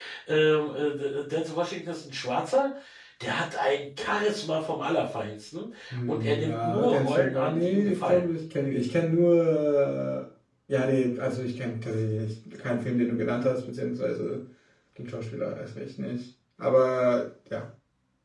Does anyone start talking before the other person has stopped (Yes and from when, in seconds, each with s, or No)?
Yes, from 6.1 s